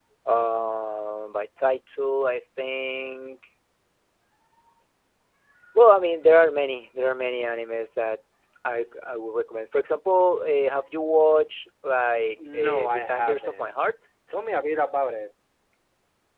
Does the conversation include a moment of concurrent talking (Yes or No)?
Yes